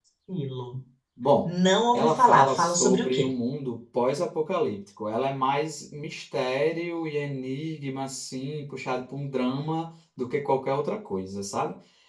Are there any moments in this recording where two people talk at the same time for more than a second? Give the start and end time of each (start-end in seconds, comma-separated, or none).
1.9-3.3